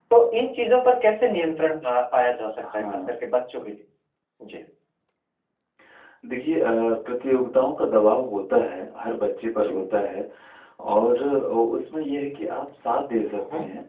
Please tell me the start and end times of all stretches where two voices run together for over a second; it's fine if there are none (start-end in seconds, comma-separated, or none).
none